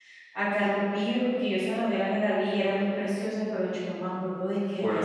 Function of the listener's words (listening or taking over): taking over